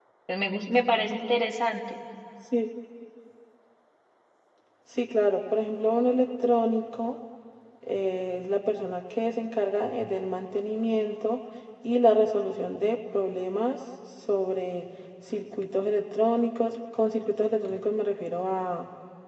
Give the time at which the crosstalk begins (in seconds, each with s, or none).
none